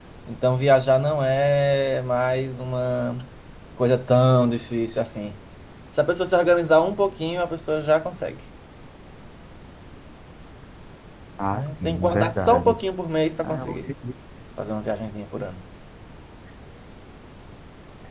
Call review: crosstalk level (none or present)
present